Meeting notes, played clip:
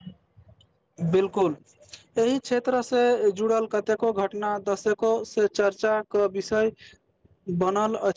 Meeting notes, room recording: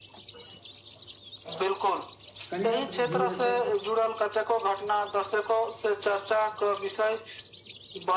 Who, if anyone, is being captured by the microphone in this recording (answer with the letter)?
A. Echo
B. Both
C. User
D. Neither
B